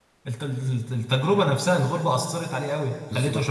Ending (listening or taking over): taking over